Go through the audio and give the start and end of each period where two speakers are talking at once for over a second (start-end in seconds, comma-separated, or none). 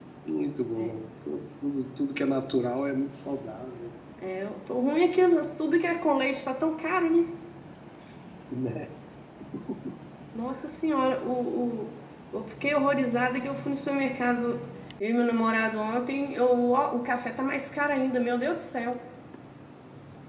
none